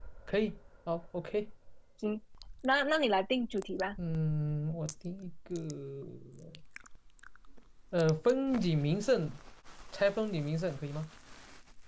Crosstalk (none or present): none